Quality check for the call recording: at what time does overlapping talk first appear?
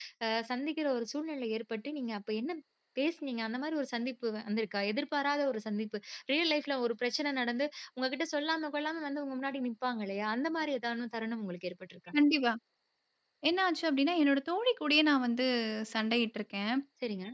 none

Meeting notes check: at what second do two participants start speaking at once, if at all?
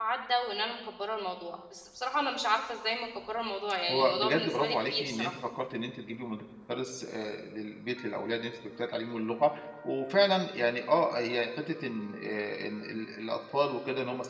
4 s

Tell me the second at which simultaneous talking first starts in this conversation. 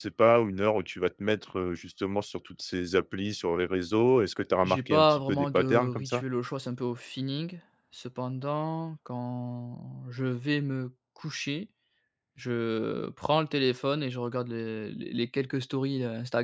5 s

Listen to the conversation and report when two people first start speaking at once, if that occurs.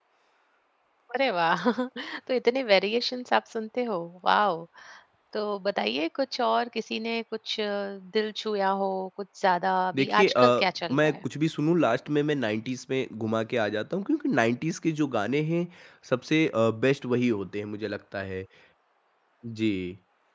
10 s

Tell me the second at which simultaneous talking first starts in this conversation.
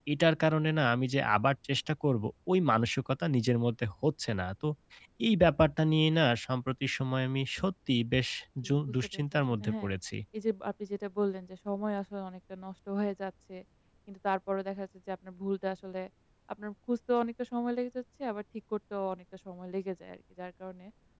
9 s

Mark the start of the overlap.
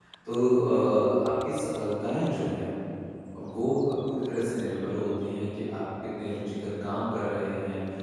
none

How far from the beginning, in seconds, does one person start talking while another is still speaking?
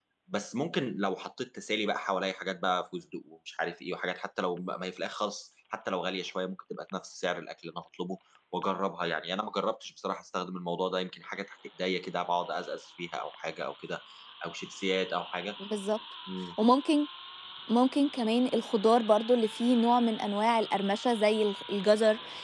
none

